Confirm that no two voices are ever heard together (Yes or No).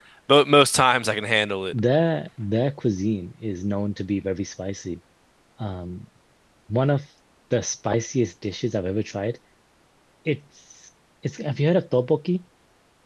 Yes